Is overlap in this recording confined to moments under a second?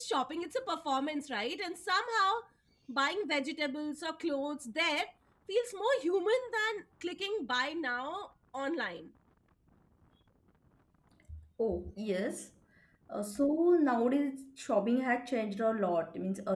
Yes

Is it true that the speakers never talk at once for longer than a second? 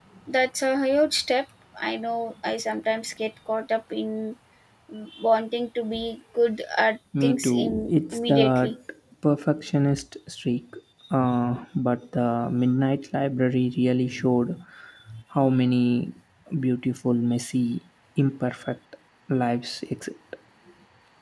No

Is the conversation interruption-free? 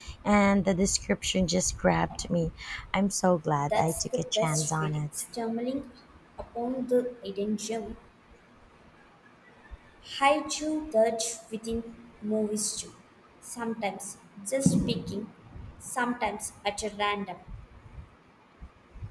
No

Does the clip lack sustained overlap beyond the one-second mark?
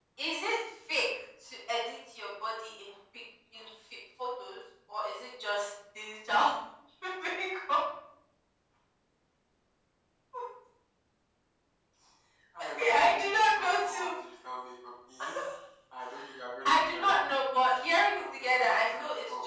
No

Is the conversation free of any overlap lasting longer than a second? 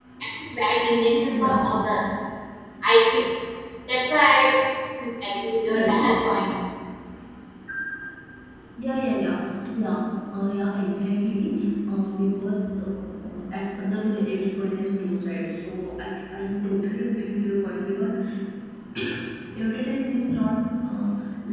Yes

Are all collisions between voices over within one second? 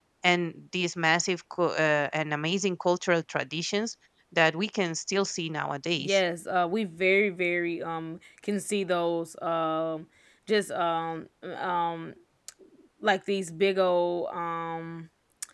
Yes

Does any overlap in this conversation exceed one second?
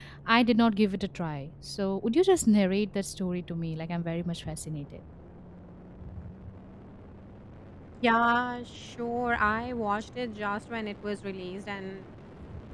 No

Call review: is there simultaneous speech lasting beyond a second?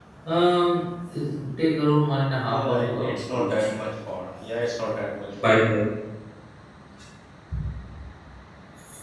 Yes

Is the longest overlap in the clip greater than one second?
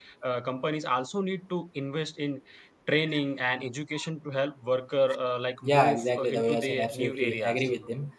Yes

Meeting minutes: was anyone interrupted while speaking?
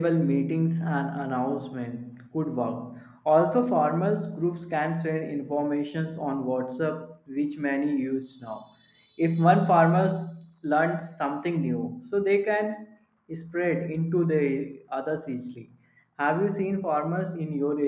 No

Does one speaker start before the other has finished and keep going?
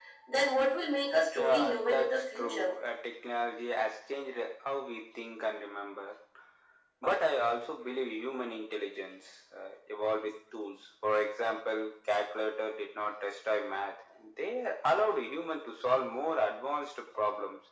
Yes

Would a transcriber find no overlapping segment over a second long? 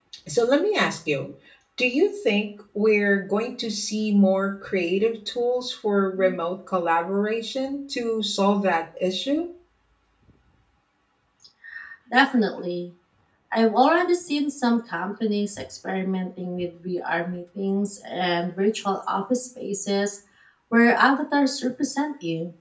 Yes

